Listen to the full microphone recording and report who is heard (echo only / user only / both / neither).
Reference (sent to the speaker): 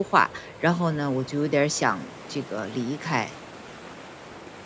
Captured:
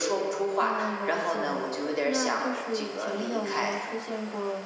both